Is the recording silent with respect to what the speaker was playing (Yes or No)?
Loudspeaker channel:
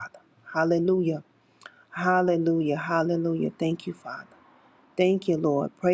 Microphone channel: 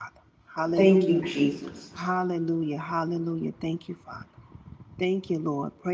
No